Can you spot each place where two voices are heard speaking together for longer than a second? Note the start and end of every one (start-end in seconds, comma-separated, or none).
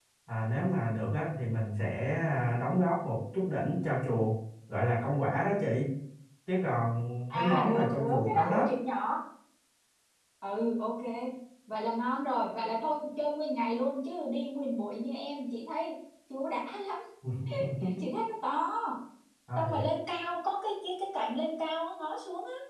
7.3-8.6